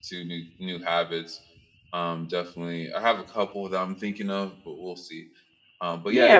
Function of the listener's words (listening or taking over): taking over